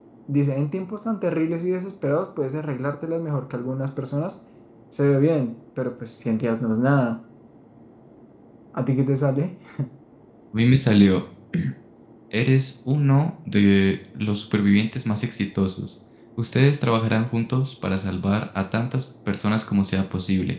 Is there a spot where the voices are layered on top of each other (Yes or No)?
No